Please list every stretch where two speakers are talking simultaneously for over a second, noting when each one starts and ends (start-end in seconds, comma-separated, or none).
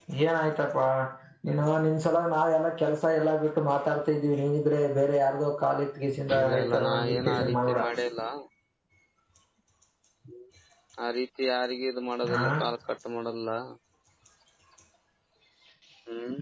6.4-7.8